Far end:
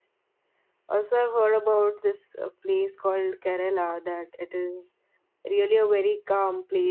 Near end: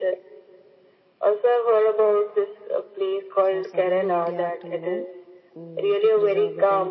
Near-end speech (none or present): present